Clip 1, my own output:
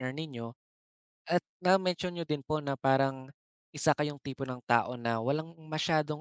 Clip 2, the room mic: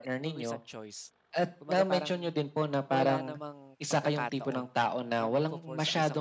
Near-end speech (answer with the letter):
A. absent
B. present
B